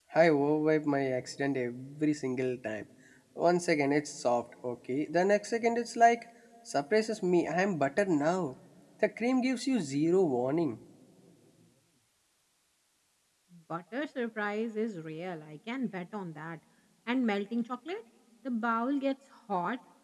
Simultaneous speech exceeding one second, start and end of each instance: none

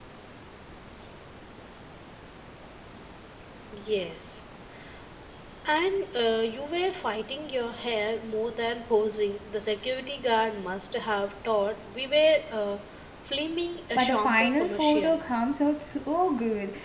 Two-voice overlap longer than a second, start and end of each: 14.0-15.2

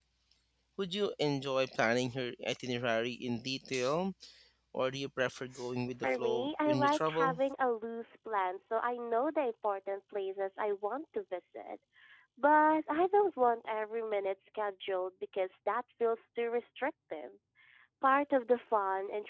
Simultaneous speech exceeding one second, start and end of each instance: 6.0-7.4

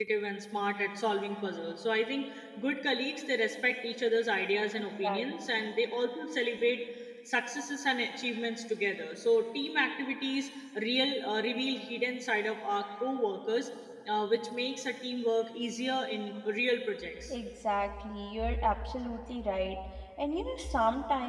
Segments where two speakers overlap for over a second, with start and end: none

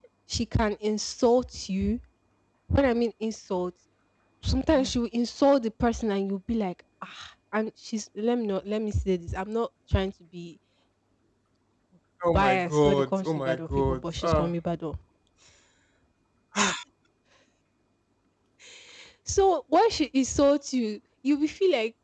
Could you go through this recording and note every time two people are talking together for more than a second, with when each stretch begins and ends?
12.3-14.5

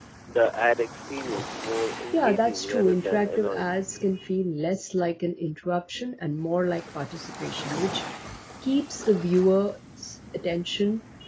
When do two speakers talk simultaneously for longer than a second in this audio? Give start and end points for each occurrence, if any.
2.1-3.7

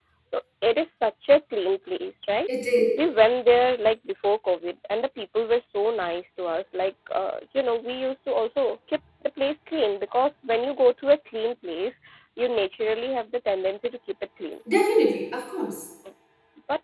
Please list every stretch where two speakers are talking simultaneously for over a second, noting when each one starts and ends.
none

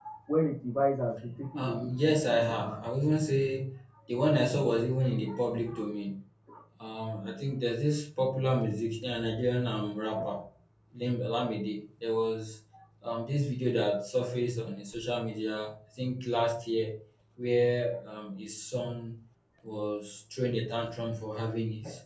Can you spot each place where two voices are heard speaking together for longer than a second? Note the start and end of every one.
1.6-2.8

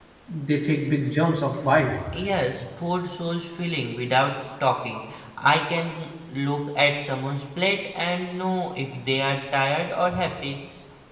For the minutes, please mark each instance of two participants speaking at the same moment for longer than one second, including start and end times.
none

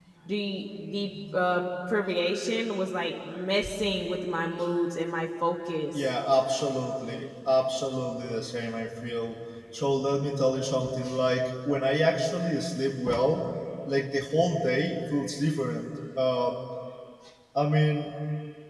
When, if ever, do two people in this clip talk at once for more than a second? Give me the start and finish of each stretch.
none

